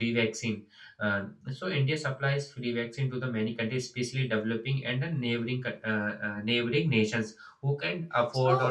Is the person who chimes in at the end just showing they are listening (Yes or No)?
No